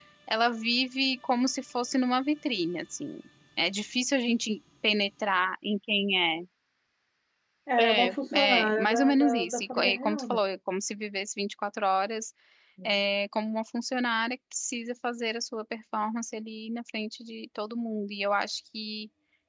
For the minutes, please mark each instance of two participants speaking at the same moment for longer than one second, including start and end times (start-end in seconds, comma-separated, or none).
7.8-10.4